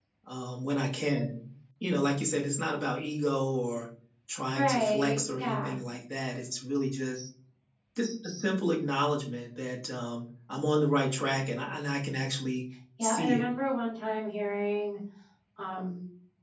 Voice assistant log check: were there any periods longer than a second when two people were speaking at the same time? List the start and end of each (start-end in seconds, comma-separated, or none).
4.5-5.8